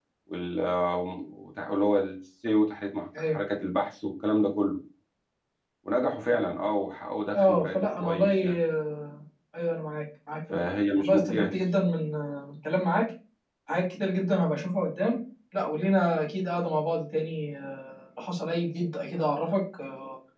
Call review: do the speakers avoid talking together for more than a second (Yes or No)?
No